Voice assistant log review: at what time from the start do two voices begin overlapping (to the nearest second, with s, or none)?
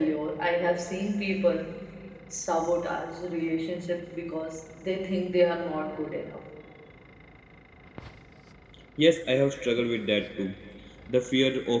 none